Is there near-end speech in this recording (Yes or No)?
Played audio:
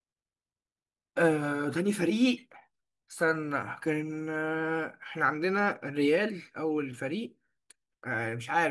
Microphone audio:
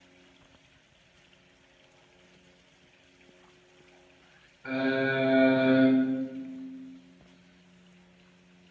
Yes